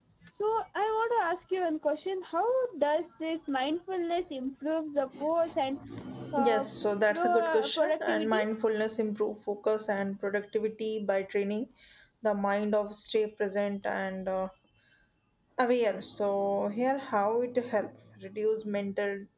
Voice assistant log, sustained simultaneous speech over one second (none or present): present